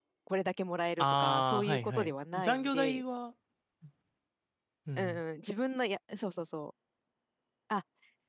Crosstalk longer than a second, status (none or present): present